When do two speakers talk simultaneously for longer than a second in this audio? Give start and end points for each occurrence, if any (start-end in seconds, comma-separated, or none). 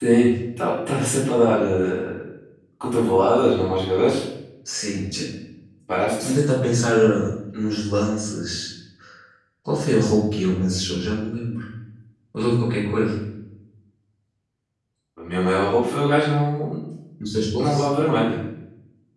none